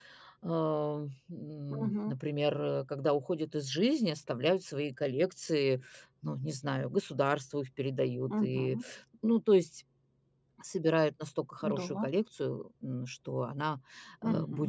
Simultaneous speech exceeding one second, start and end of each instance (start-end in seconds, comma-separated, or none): none